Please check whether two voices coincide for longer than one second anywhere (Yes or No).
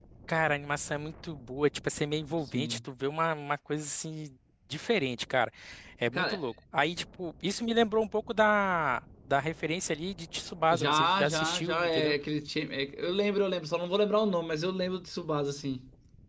Yes